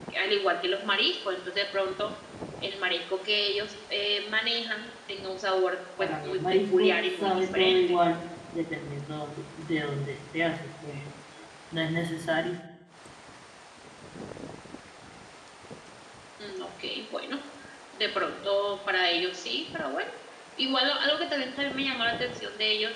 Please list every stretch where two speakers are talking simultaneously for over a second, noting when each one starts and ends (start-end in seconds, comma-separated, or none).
6.0-7.8